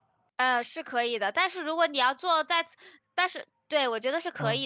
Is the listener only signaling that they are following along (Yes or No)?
Yes